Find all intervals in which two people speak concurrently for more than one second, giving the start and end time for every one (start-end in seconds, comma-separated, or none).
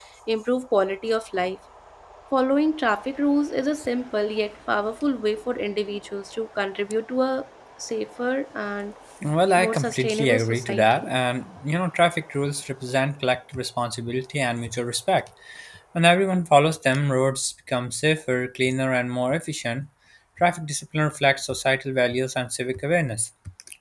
9.6-11.1